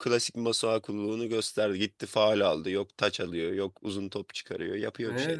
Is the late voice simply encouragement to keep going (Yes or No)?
No